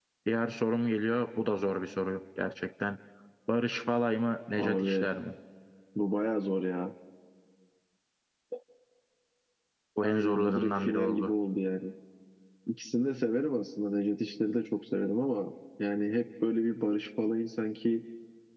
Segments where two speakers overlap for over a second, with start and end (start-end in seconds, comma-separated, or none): 10.0-11.3